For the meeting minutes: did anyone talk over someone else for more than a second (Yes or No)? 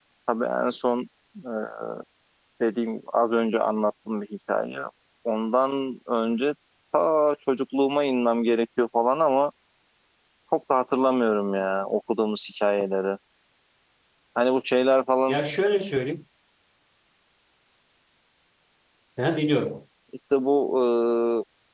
No